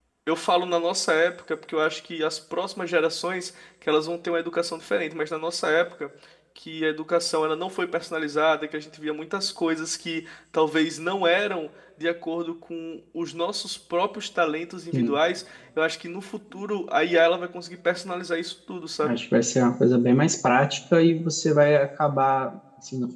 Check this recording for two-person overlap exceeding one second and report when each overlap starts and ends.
none

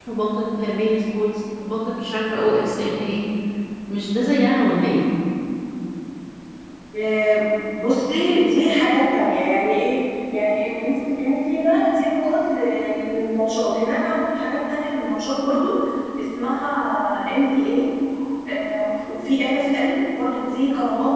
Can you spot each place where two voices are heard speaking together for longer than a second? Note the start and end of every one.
none

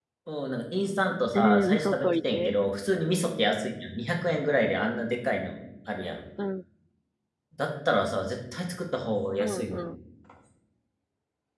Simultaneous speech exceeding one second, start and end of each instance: 1.3-2.5

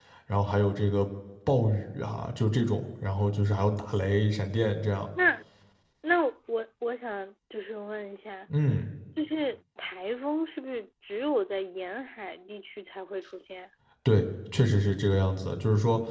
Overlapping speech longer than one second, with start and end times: none

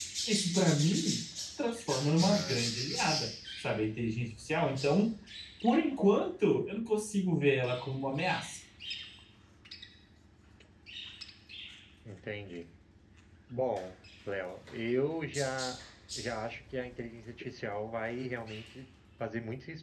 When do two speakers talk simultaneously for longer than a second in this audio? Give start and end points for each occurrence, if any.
none

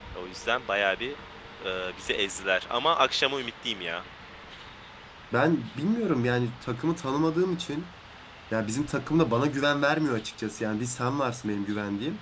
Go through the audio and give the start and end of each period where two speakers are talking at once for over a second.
none

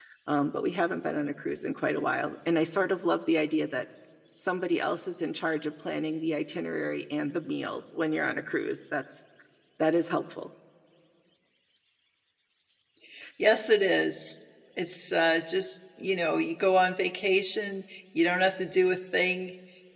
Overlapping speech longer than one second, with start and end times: none

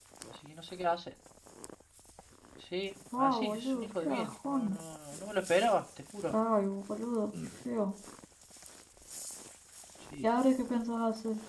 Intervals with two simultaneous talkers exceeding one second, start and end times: 3.2-4.8

